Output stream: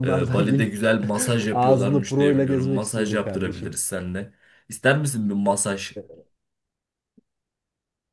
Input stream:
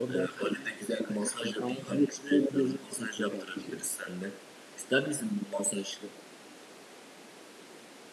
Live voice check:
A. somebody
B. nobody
B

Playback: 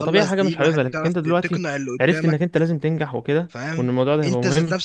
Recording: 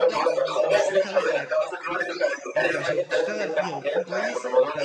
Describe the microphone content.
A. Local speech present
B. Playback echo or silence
A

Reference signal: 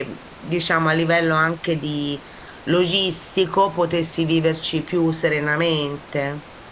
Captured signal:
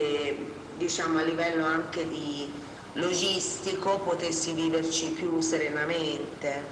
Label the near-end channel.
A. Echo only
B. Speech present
A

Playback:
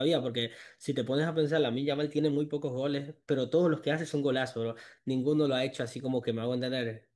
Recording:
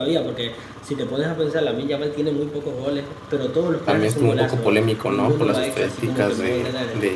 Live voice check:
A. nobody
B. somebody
B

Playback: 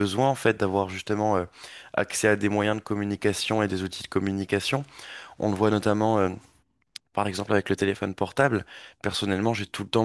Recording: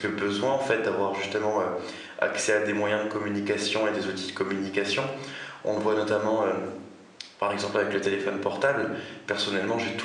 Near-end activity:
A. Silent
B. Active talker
A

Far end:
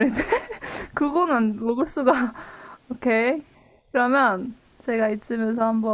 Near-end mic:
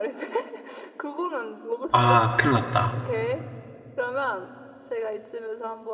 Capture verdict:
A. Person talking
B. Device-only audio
A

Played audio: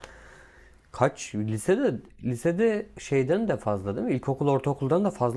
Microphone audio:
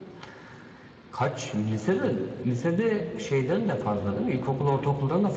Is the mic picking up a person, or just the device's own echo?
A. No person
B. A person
A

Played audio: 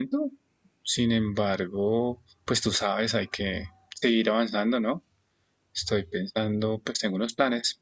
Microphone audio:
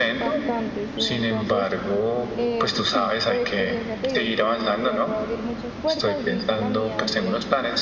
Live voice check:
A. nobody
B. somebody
B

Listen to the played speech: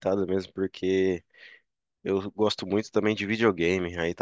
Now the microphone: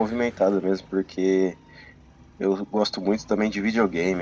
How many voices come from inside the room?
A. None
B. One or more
A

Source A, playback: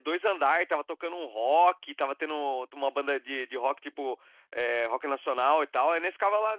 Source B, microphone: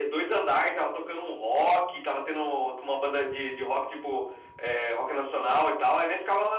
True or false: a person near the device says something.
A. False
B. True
A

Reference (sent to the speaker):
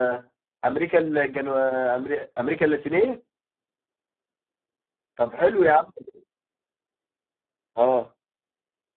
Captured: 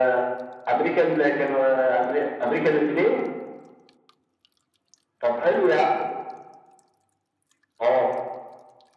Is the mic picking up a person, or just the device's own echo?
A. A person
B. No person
B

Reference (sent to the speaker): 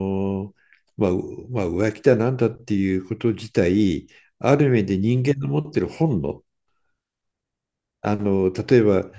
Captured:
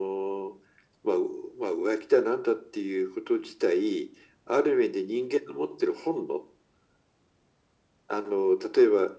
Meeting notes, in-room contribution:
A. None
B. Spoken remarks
A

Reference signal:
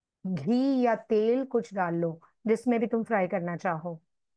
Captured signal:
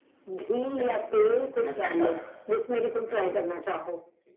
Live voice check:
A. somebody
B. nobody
A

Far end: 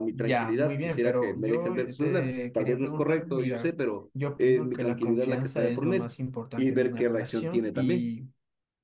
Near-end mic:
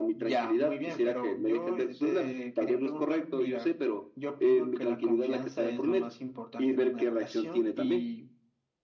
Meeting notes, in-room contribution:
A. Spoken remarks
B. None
B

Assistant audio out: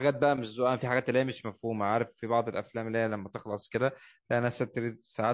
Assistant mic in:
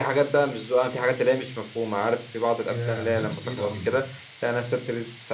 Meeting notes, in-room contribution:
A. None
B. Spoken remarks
B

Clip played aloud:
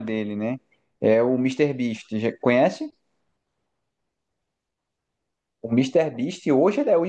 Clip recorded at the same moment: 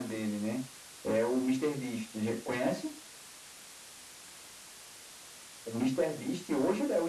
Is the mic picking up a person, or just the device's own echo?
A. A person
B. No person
B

